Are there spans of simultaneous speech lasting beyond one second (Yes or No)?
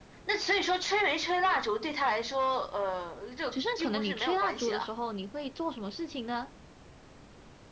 Yes